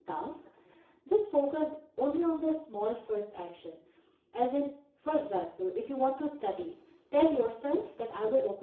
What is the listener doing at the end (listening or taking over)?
listening